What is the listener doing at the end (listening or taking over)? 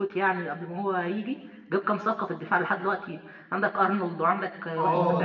taking over